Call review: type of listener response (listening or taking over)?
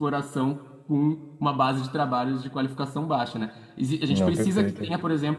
listening